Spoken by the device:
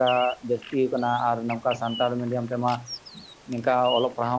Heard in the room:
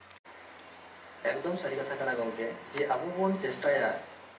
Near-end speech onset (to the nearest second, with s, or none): 1 s